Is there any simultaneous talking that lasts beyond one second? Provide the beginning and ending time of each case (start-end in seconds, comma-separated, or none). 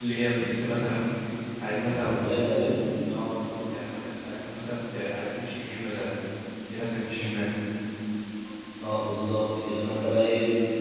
none